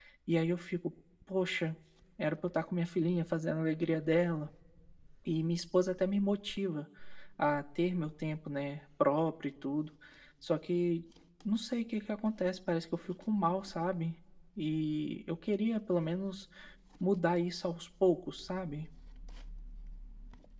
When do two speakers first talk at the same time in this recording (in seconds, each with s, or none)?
none